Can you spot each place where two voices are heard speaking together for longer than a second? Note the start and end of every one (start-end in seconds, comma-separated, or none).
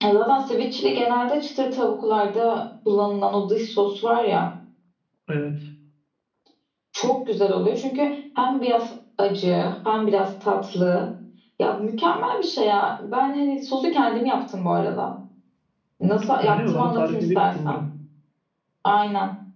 16.4-17.8